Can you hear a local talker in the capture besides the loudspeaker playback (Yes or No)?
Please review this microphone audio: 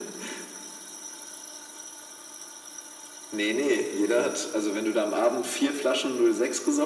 No